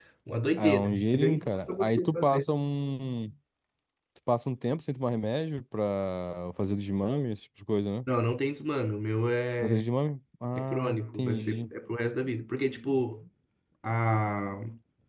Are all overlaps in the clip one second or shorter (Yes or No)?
No